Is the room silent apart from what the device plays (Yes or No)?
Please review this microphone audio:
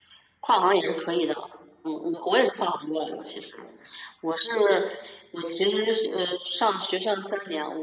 Yes